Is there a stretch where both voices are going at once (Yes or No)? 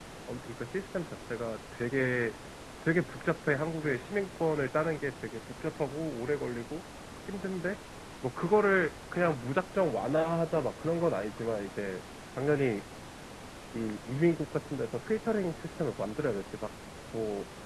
No